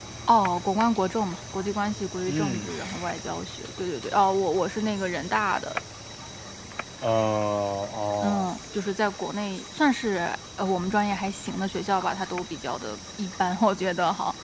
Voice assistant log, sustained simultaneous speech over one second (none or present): none